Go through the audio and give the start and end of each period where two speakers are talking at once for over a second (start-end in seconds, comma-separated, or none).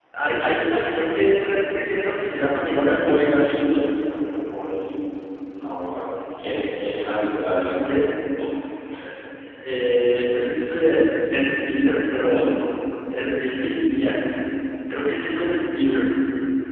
none